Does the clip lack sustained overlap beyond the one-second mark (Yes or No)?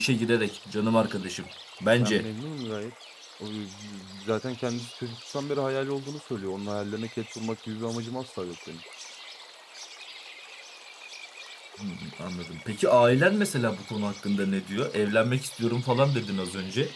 Yes